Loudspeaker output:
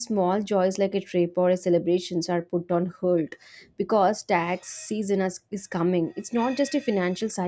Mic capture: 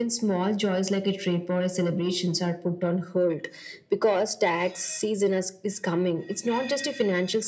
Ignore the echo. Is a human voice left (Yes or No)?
No